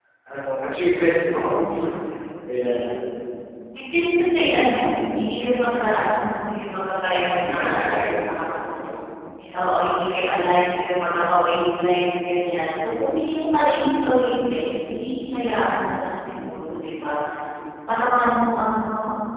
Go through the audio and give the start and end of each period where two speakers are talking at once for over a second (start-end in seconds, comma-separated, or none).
7.3-8.6